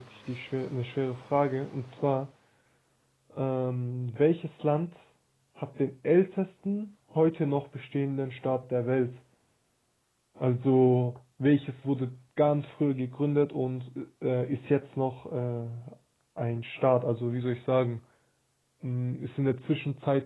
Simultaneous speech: No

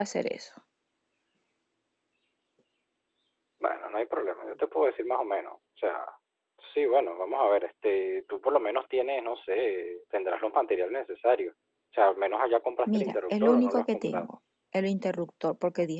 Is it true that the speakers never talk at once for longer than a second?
No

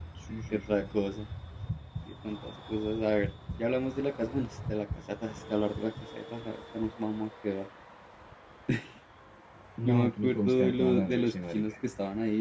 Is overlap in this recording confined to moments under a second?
No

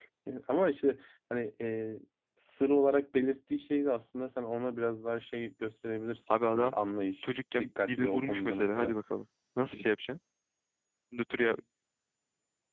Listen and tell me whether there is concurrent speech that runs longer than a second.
Yes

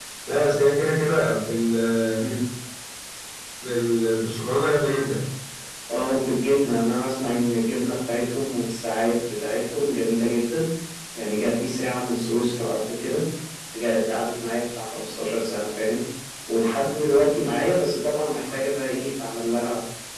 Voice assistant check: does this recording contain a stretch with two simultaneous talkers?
No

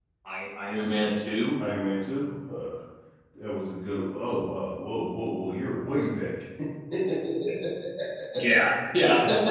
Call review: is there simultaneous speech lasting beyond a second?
No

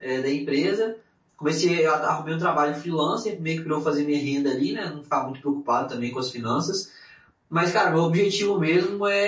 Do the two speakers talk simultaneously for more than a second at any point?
No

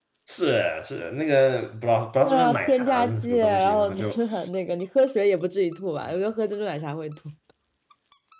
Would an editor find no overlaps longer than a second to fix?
No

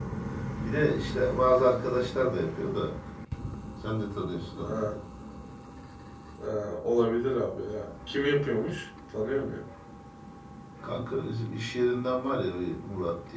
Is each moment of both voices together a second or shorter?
Yes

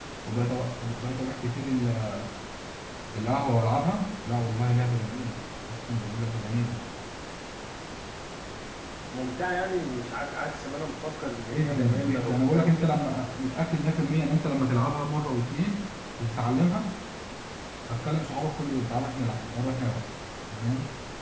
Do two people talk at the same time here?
Yes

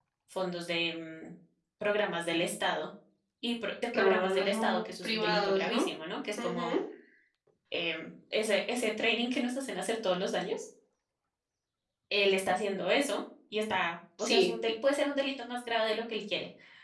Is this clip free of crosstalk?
No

